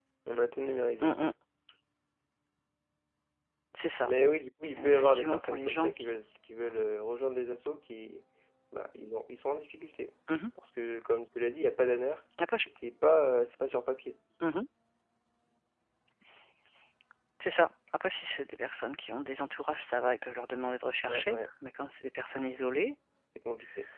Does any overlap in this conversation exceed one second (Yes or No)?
Yes